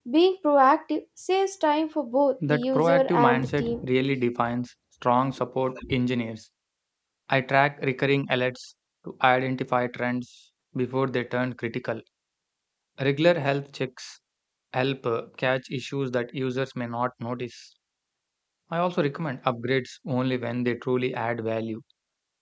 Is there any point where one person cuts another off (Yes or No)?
Yes